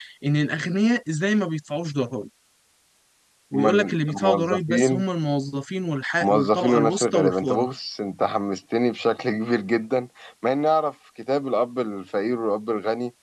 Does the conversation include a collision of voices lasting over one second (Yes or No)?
Yes